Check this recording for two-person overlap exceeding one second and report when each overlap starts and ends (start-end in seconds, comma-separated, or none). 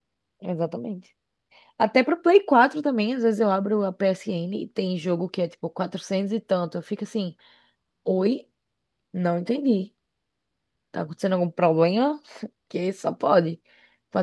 none